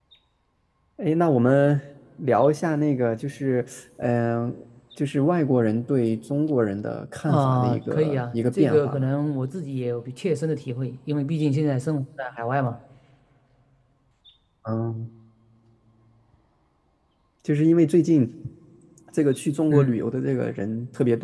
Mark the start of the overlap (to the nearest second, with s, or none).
7 s